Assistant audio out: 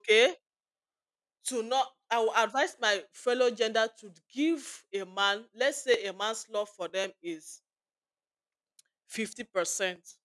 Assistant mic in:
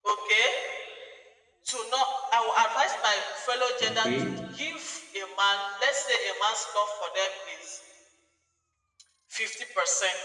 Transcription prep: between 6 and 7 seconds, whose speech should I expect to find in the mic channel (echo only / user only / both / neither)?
echo only